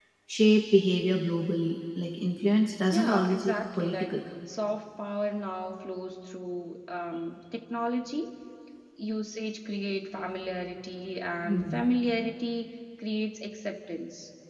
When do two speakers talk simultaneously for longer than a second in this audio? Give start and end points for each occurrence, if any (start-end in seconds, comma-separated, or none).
2.9-4.2